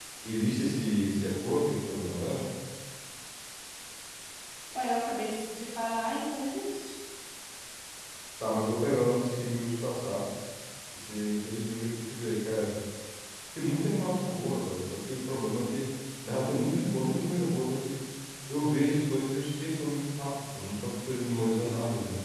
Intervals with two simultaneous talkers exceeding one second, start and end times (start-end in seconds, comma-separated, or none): none